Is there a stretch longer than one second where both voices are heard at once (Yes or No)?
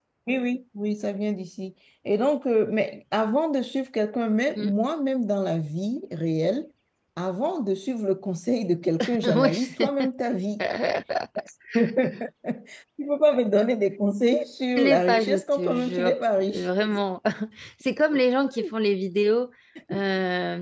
Yes